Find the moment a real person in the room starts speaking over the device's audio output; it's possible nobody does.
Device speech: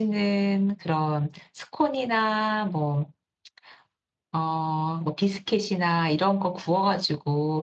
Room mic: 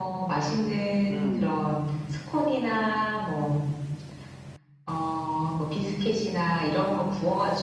1.1 s

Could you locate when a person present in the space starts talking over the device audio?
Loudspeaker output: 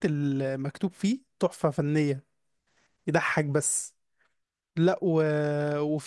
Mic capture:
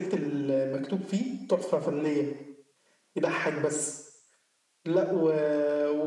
none

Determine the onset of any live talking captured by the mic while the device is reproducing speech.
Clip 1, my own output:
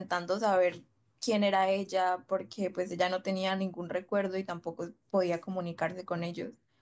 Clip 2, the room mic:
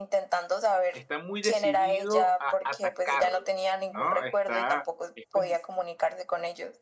0.9 s

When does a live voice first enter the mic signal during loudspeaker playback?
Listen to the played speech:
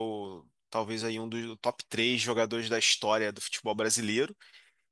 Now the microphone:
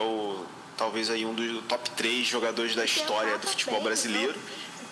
2.8 s

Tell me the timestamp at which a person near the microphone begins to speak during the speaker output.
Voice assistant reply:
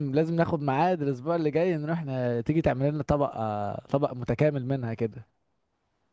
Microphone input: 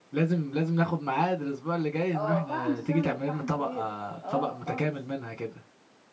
2.1 s

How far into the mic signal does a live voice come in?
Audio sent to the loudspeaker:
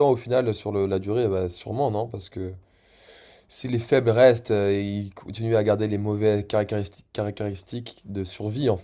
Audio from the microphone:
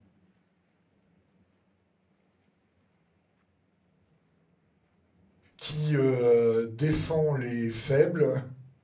5.6 s

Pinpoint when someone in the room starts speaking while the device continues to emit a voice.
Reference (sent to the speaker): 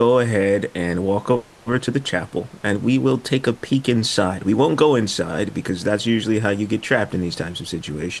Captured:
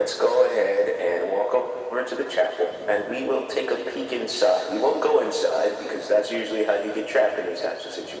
none

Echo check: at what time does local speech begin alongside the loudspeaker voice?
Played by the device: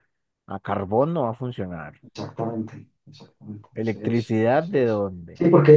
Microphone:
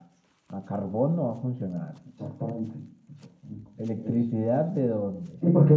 none

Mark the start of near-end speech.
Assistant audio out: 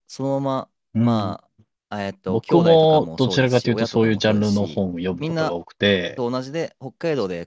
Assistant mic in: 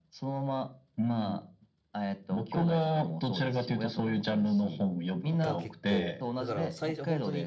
5.4 s

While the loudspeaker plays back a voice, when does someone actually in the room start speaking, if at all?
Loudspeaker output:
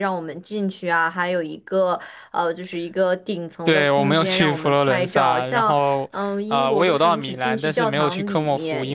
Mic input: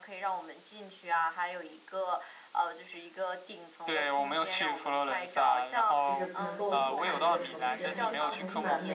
6.0 s

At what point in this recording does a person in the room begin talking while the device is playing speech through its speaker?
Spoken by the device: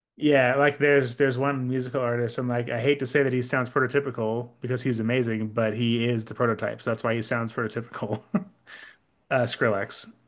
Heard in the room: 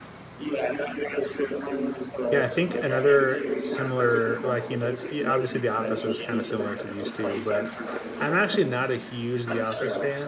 2.3 s

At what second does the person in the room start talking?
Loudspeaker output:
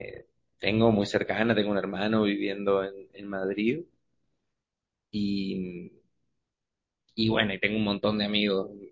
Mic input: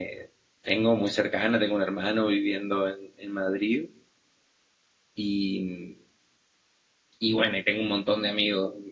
none

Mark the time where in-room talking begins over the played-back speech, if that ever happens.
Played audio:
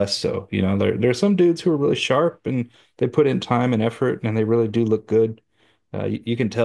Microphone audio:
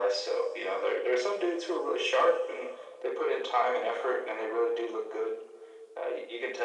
none

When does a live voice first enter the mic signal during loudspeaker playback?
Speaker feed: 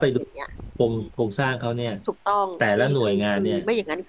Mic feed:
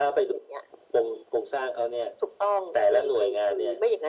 none

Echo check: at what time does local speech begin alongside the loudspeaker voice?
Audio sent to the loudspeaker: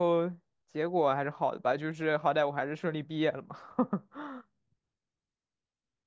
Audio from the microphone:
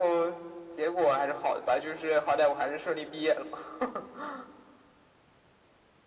none

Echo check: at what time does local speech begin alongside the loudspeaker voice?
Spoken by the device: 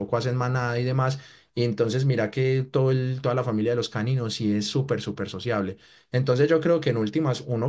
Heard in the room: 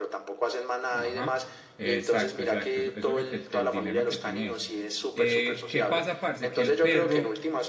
0.9 s

